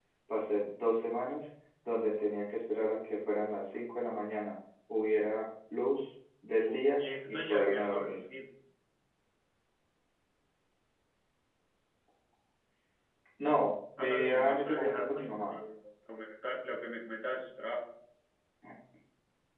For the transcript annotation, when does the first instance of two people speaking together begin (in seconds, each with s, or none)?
6.6 s